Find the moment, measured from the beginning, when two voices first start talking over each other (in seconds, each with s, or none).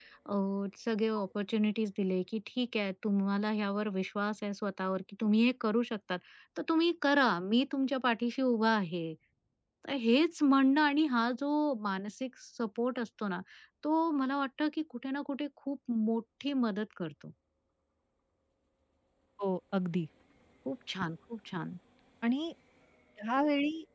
none